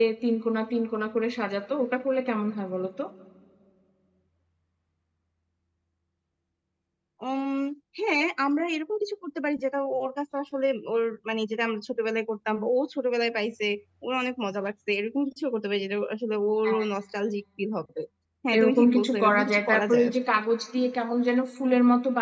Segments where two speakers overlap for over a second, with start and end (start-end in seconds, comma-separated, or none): 18.6-20.2